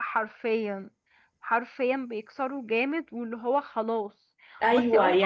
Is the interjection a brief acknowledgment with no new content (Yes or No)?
No